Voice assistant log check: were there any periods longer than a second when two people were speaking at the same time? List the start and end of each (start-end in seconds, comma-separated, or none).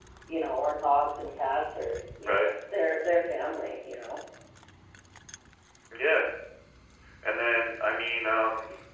none